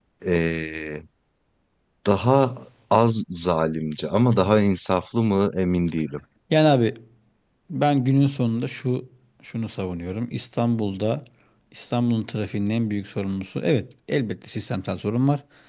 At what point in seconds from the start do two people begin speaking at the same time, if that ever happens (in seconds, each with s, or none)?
none